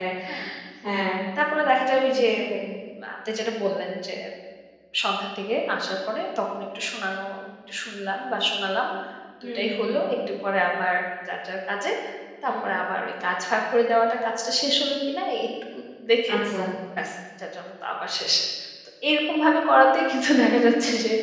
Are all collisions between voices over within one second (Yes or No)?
Yes